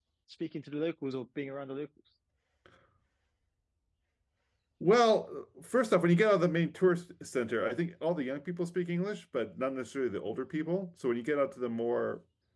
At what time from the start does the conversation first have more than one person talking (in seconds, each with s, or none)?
none